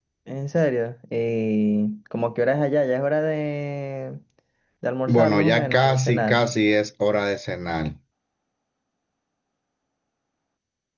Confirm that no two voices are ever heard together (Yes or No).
No